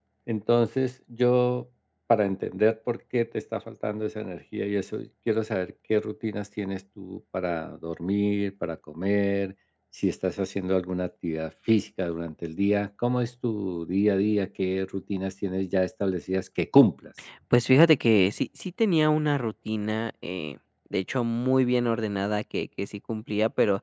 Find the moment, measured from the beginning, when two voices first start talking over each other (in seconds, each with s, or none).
none